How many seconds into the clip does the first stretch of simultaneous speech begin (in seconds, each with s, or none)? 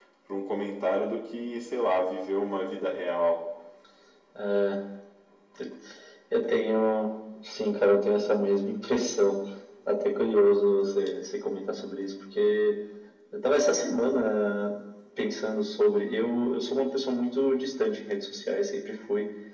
none